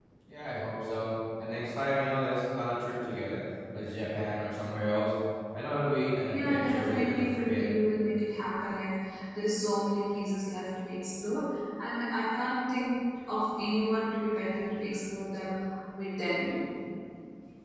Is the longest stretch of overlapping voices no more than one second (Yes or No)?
No